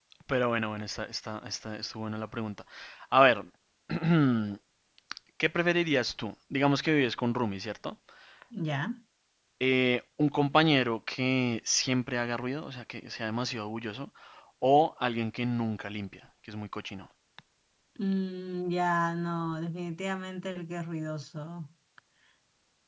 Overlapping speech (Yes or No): No